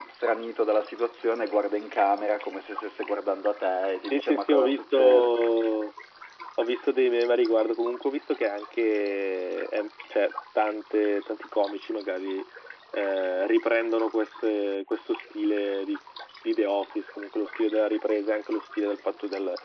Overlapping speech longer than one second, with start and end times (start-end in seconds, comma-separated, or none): 4.1-5.3